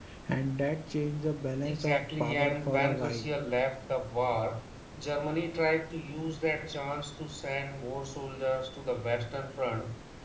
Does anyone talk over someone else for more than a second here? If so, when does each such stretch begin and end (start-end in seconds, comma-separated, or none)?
1.6-3.2